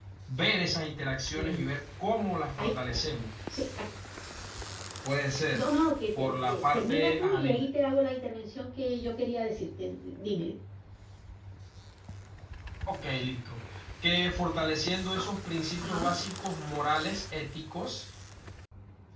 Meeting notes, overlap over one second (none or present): present